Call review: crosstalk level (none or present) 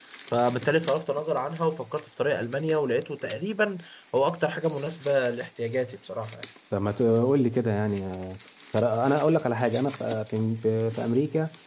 none